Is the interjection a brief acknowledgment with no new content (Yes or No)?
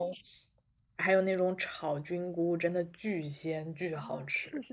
No